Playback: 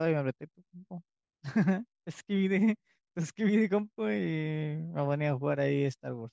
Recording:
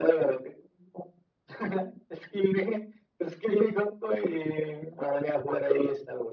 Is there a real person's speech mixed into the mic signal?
No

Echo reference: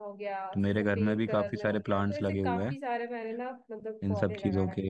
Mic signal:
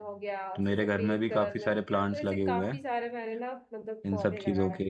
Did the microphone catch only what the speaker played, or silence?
Yes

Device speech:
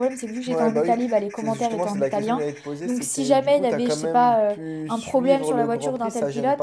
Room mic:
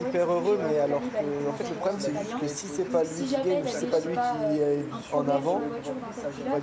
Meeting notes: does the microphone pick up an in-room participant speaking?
Yes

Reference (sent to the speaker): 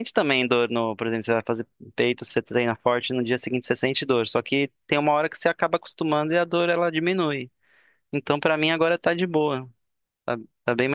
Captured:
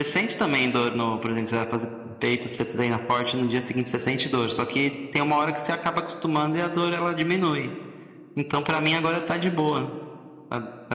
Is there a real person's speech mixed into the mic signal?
No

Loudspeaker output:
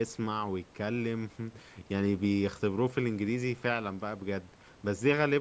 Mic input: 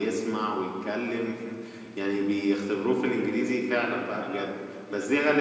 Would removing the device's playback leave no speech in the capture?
No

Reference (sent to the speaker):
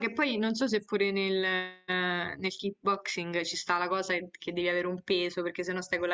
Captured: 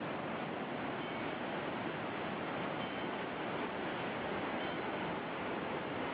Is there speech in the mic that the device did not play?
No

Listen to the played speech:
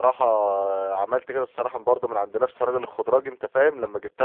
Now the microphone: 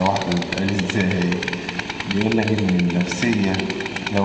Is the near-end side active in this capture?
Yes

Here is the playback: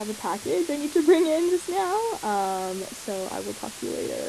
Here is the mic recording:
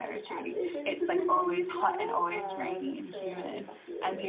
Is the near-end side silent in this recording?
No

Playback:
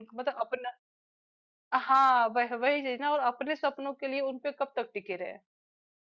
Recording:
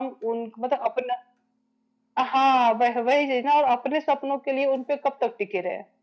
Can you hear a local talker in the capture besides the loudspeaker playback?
No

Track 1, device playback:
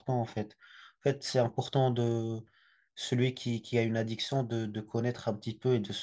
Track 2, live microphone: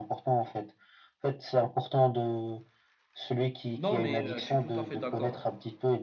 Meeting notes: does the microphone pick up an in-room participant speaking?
Yes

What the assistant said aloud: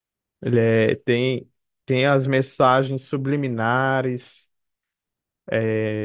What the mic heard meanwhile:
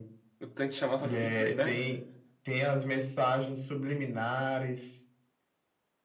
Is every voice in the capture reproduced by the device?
No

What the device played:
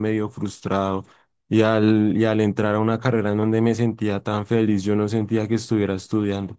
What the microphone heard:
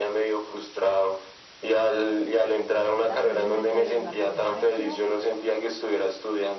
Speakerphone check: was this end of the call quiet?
No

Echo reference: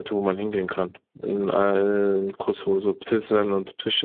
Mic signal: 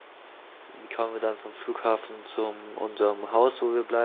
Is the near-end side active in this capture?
Yes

